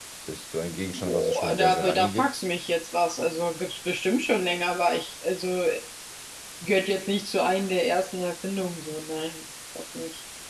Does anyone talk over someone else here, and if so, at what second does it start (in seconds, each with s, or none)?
0.9 s